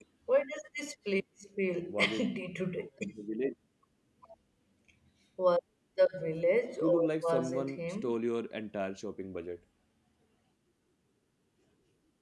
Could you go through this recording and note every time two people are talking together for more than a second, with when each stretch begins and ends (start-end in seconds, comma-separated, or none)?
6.8-8.2